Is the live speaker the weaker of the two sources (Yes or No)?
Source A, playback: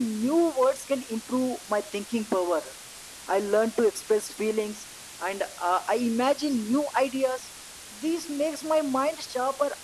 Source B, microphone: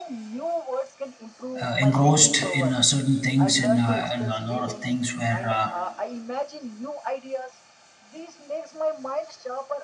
No